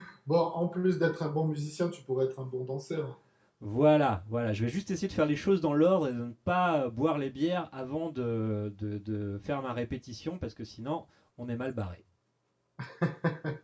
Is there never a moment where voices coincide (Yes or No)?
Yes